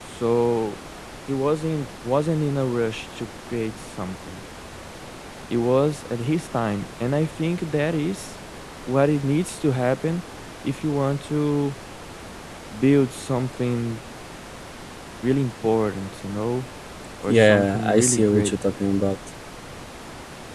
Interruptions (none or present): present